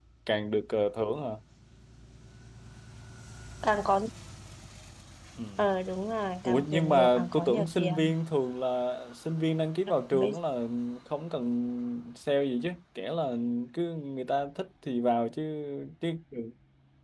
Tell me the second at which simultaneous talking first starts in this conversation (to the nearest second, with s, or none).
6 s